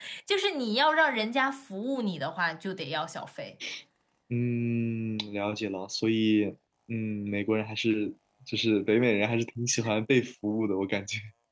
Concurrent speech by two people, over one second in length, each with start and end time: none

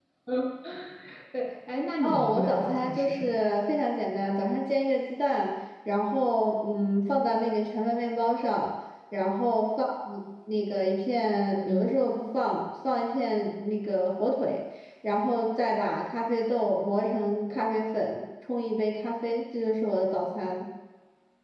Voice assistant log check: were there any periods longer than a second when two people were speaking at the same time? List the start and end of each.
2.0-3.4

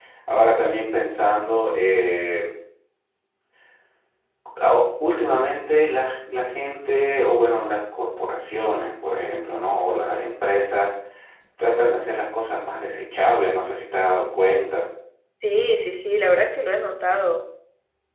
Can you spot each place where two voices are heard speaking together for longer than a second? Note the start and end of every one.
none

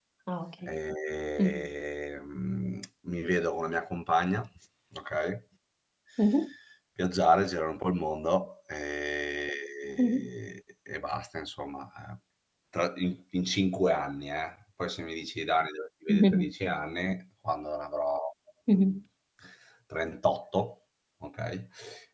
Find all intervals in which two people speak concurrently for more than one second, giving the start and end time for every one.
none

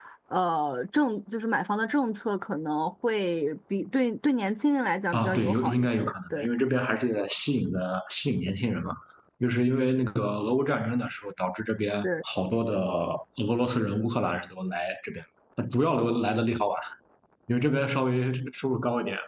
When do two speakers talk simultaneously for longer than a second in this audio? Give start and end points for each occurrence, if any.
5.1-6.5

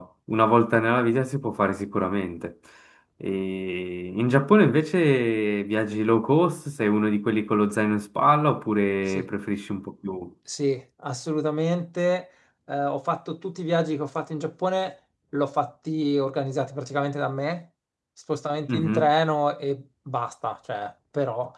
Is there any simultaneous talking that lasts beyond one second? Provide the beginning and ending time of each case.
none

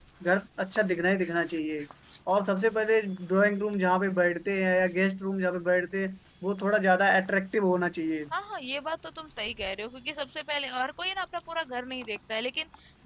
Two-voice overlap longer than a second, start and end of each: none

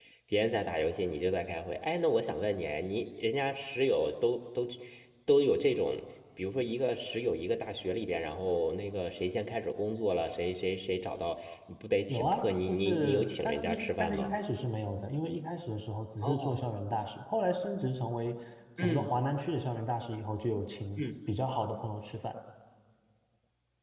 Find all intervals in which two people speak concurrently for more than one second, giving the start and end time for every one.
12.1-14.4

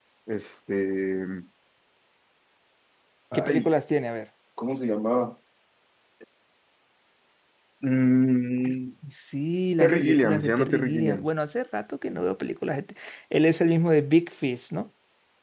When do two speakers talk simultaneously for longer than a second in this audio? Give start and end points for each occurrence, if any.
9.8-11.2

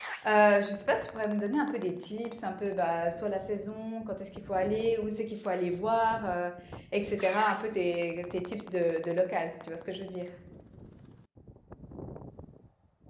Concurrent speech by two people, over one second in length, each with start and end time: none

